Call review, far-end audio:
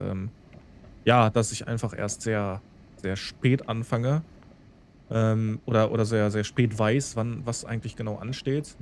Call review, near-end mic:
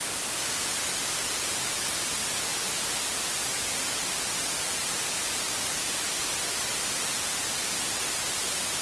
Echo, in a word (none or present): none